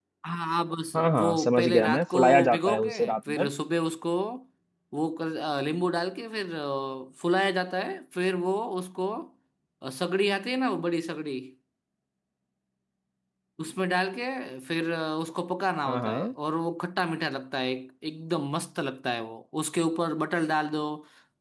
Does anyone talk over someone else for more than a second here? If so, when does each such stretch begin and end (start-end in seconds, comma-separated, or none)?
0.9-3.5